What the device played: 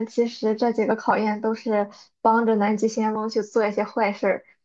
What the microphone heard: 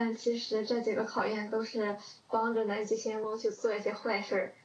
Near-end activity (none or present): none